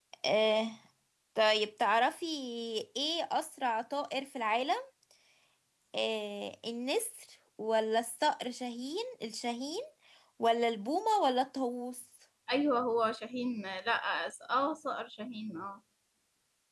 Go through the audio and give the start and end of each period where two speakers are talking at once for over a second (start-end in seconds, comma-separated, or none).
none